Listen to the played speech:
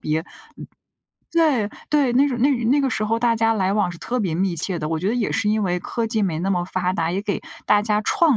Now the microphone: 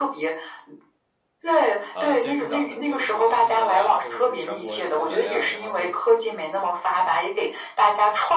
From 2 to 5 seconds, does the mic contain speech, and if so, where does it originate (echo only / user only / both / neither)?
both